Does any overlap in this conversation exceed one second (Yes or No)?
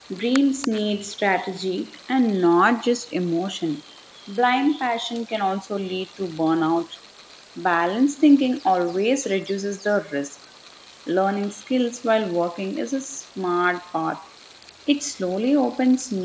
No